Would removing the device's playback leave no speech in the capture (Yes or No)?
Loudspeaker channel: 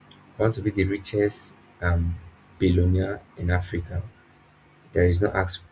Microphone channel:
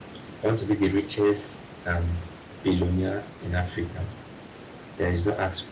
Yes